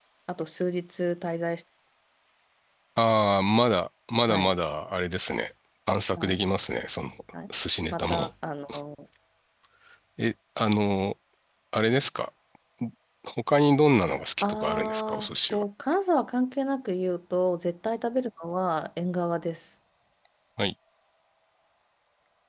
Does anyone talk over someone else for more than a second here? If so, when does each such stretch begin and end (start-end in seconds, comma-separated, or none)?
14.4-15.6